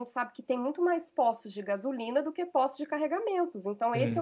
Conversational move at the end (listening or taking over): listening